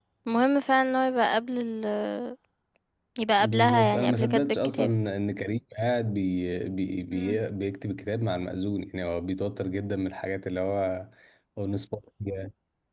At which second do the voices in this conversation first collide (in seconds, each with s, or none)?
3.4 s